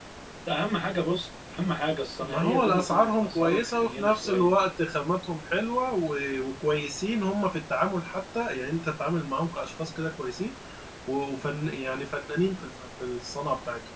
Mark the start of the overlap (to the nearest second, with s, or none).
2 s